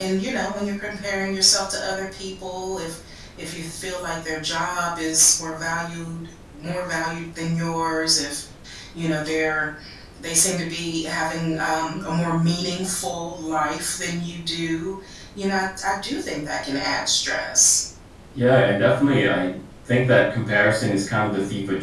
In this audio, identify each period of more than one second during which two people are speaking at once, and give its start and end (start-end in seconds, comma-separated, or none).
none